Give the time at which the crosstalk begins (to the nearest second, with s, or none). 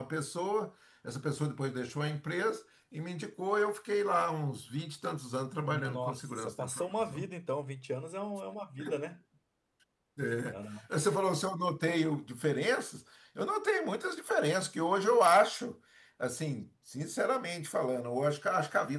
6 s